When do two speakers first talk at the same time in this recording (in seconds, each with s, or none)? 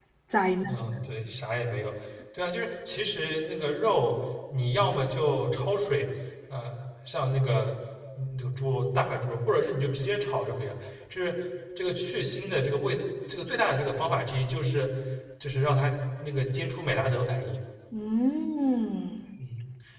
none